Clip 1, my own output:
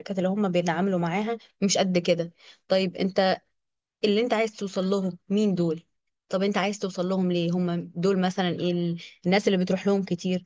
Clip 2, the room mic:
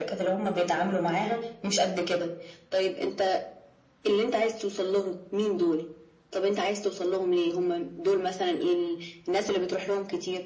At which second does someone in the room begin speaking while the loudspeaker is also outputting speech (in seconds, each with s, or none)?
none